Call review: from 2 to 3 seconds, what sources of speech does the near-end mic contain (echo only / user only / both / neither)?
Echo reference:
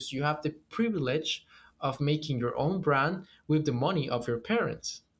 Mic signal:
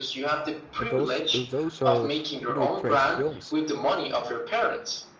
both